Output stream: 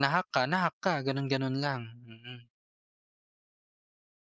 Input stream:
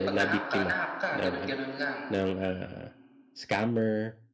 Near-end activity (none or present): present